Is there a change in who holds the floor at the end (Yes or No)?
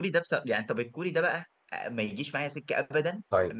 No